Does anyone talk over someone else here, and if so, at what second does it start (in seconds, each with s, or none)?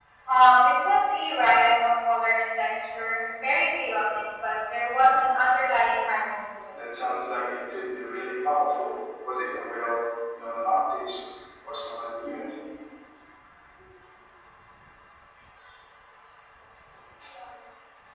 none